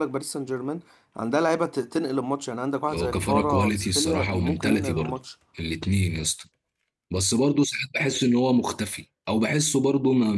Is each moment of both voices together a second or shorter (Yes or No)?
No